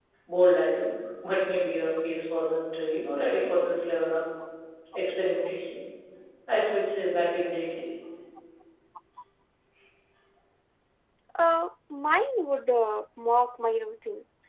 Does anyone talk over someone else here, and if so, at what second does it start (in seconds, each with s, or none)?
none